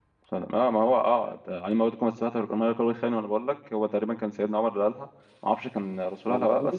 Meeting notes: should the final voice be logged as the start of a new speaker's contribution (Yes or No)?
No